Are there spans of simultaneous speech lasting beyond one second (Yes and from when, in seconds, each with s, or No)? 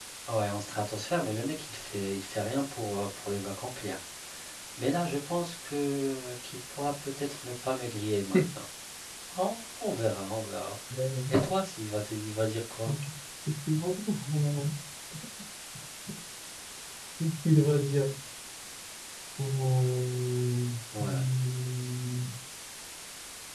No